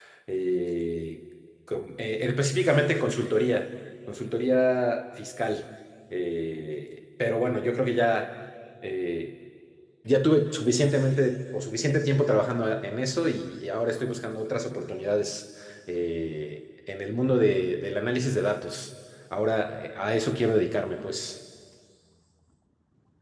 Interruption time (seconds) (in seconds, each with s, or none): none